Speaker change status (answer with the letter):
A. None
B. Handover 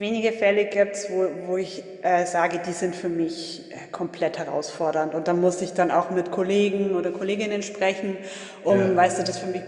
A